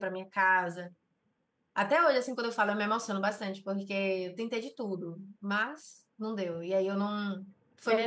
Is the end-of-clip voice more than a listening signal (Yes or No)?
Yes